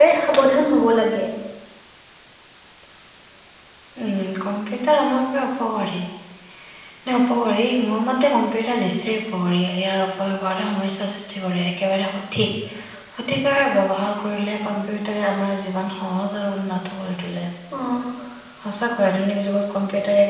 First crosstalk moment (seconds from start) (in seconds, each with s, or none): none